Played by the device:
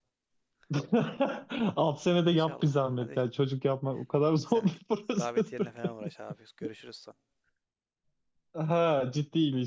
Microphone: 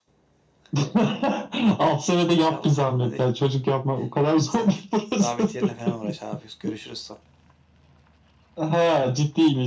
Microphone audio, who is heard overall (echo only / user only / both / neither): echo only